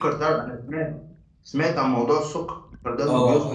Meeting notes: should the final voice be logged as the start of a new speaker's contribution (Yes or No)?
Yes